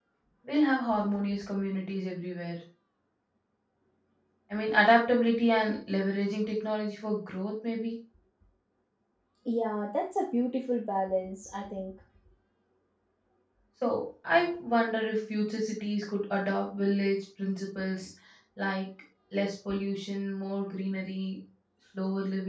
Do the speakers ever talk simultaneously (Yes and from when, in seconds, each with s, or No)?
No